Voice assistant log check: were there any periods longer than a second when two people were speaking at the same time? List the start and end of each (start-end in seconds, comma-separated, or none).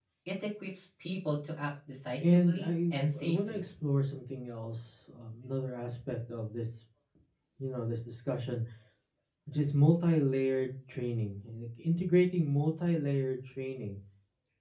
2.2-3.6